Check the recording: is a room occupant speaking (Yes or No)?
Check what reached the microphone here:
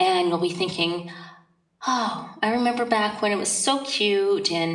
Yes